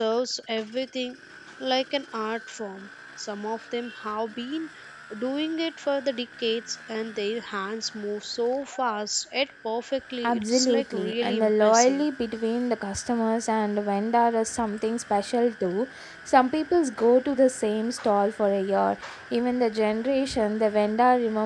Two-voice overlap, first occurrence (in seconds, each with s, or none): 10.2 s